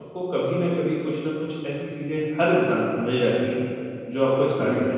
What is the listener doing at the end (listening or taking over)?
listening